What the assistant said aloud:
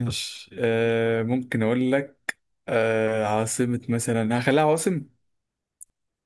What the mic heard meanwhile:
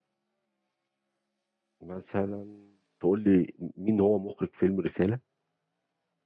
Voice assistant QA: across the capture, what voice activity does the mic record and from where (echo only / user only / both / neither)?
user only